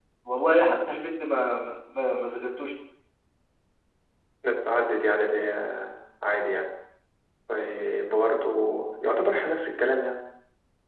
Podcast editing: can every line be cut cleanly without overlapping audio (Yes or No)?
Yes